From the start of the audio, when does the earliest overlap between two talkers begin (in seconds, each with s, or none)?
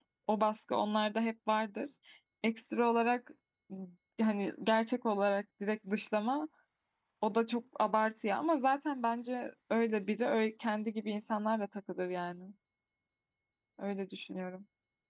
none